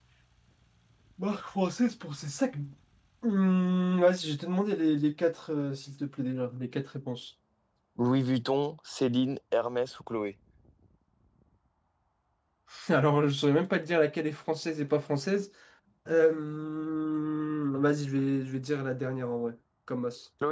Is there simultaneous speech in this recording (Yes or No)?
No